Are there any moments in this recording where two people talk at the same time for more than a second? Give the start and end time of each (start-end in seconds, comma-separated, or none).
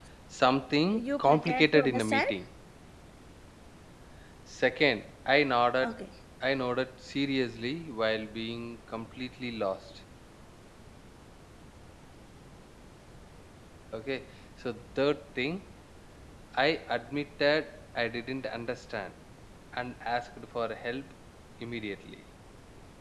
0.9-2.3